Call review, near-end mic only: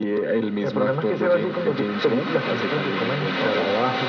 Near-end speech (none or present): none